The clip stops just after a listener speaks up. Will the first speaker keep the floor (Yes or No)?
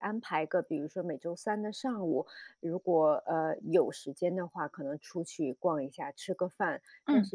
Yes